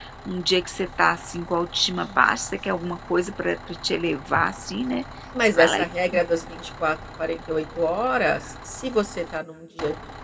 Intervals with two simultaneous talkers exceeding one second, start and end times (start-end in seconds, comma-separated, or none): none